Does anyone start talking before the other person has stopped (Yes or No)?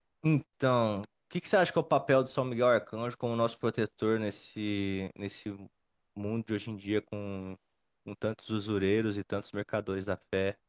No